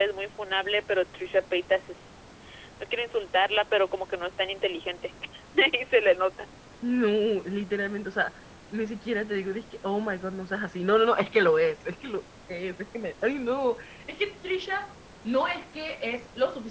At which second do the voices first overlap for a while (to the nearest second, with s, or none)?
none